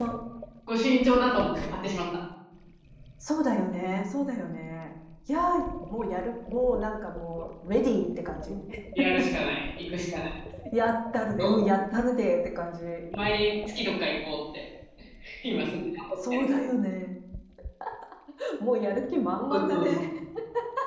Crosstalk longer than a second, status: none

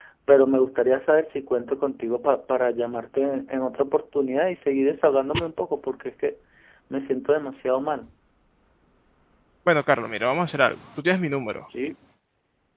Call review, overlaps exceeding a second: none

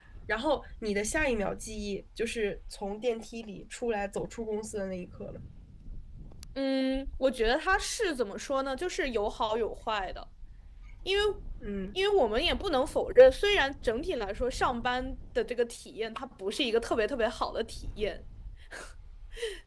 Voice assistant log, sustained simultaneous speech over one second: none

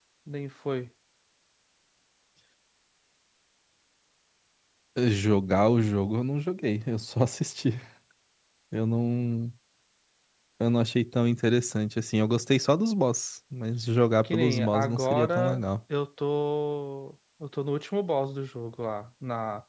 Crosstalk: present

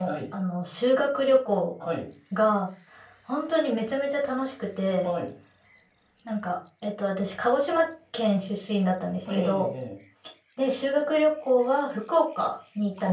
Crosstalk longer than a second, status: none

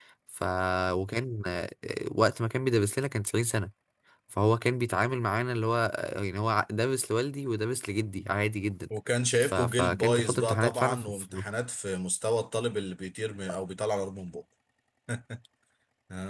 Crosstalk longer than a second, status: present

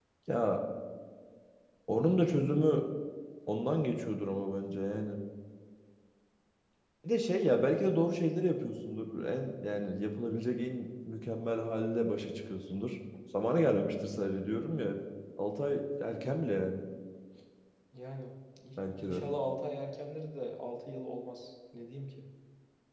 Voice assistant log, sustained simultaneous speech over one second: none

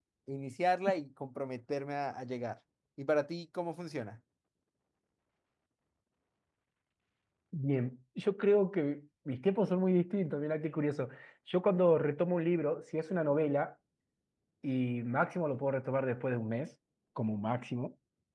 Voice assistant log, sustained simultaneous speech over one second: none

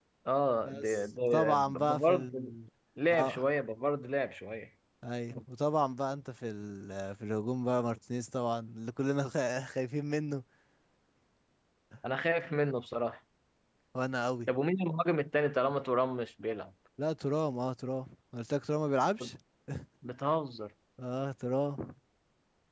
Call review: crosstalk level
present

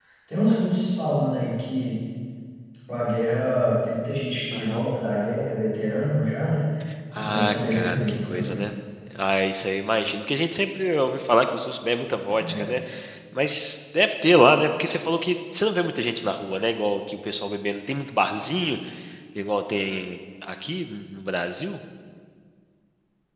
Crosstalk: present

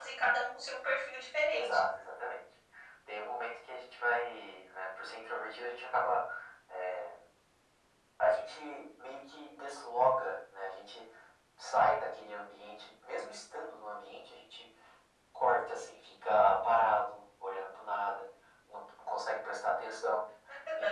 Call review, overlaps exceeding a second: none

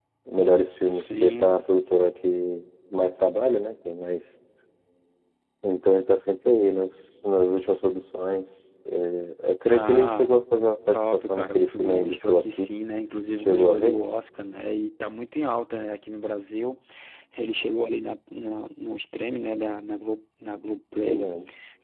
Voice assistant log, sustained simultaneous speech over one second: present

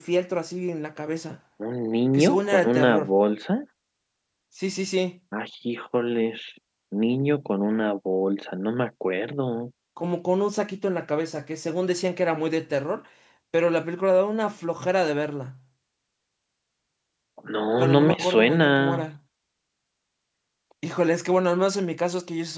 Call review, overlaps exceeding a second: present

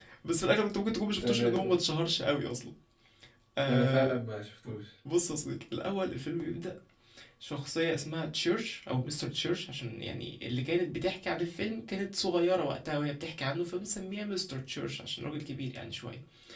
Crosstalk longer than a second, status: none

